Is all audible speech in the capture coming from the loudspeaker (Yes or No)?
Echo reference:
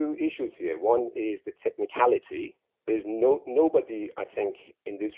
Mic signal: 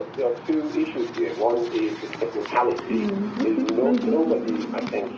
No